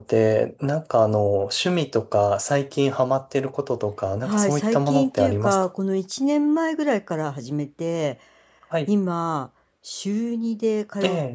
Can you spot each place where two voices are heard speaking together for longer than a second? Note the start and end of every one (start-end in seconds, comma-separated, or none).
4.2-5.7